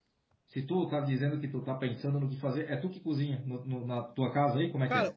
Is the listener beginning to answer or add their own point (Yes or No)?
Yes